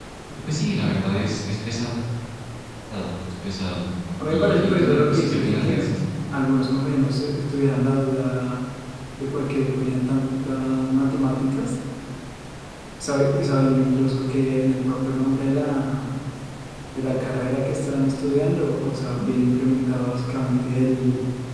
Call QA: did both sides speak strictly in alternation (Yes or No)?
No